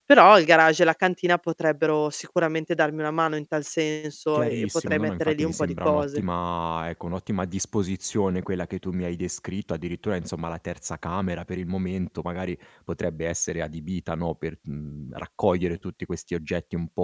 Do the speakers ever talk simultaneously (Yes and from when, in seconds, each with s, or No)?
Yes, from 4.3 s